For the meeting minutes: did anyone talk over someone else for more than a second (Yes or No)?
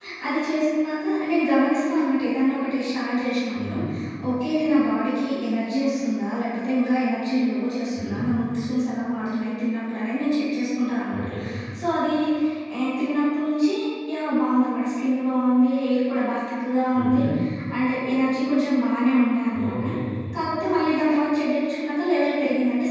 No